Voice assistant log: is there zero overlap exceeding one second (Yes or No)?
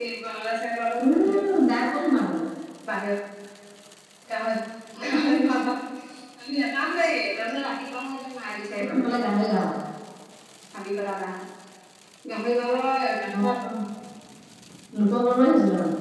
Yes